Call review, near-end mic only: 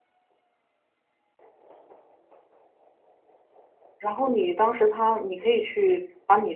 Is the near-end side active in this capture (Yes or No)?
Yes